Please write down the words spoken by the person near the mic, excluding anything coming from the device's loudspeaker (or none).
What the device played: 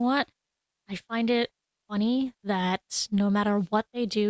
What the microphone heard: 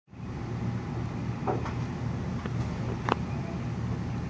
none